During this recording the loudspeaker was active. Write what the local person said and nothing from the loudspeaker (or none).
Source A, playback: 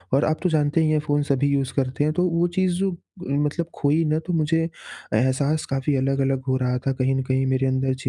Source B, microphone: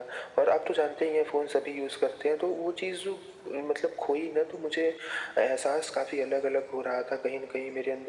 none